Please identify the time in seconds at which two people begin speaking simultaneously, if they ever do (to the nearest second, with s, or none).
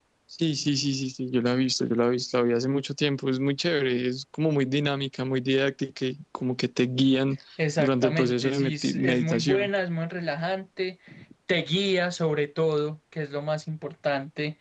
8 s